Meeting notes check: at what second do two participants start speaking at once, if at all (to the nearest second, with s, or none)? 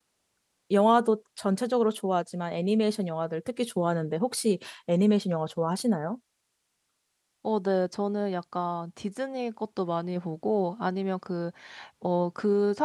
none